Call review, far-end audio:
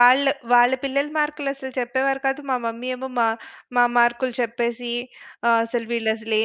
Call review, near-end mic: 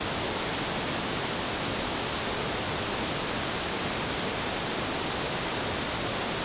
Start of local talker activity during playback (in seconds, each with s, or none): none